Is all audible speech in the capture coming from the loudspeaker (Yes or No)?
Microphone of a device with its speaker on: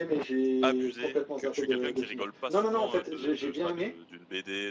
No